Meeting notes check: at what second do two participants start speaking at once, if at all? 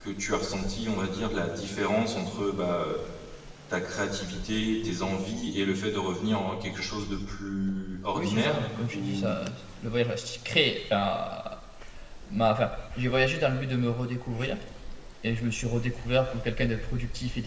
8.1 s

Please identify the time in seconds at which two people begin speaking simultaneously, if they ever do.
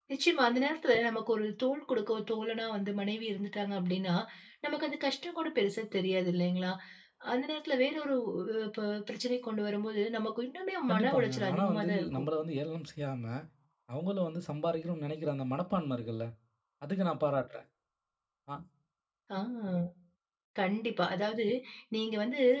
10.9 s

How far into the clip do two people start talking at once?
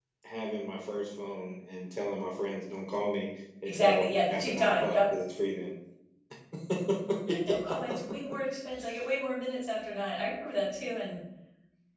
3.6 s

